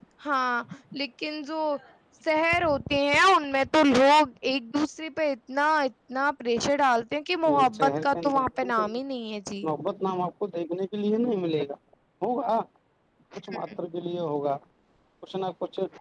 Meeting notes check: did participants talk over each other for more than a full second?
Yes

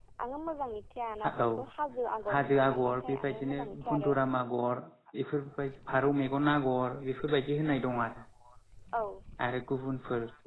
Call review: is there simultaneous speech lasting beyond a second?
Yes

